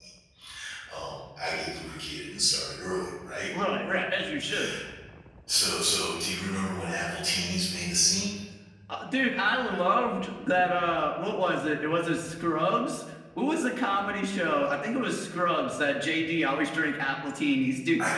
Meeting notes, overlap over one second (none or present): none